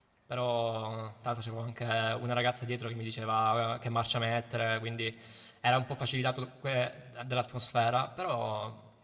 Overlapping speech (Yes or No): No